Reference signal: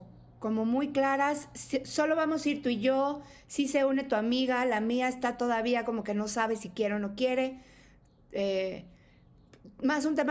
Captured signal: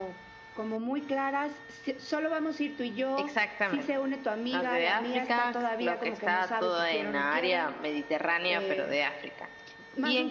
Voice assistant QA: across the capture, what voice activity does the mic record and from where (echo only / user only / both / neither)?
both